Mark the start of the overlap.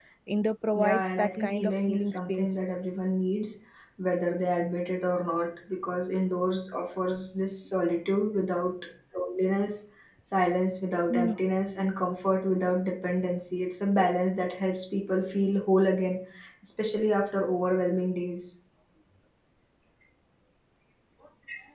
0.8 s

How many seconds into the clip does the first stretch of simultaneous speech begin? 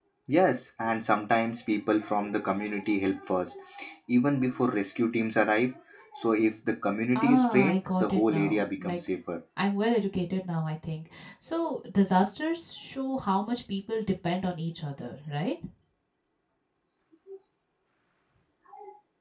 7.2 s

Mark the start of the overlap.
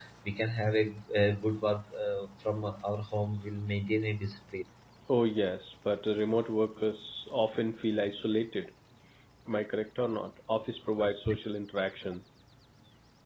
none

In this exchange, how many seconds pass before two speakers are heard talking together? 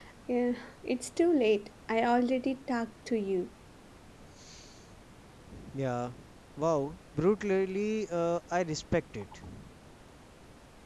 none

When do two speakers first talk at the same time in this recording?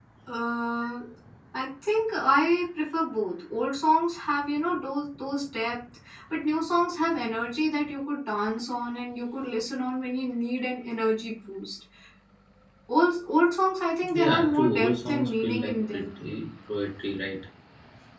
14.0 s

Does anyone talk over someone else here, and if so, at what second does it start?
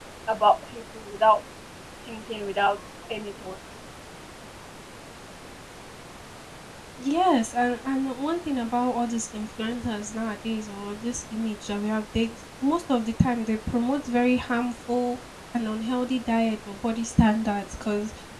none

